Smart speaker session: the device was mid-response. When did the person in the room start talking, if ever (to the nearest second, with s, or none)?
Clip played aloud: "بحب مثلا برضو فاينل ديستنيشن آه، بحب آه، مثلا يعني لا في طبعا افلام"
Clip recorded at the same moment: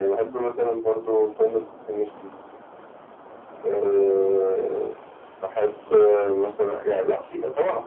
none